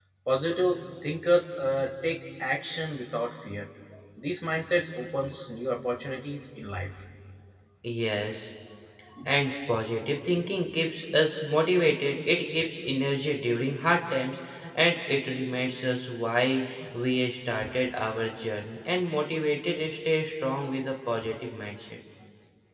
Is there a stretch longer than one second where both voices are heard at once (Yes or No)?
No